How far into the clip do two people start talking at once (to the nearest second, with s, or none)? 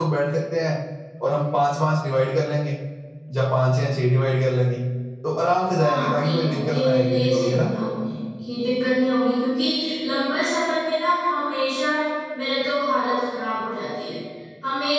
6 s